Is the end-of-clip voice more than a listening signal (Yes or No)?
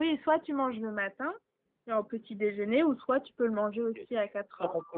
Yes